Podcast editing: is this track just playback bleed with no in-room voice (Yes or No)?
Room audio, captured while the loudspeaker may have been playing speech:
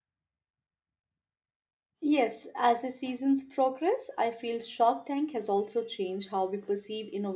No